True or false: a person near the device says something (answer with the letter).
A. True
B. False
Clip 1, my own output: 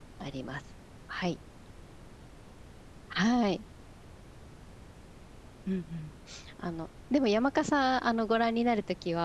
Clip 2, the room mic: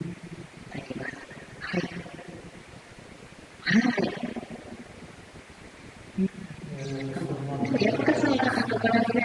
A